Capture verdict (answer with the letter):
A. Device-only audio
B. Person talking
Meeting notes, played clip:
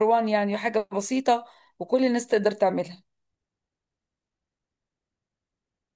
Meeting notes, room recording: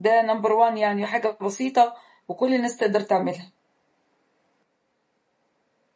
A